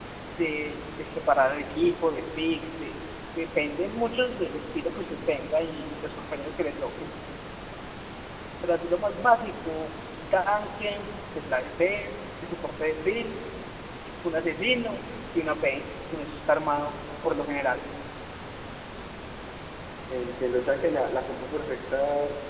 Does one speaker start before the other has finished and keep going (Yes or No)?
No